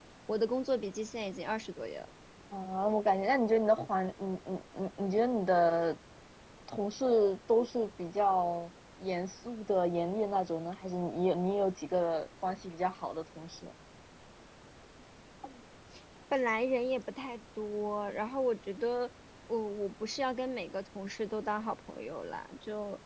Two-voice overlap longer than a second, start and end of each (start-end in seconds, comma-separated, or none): none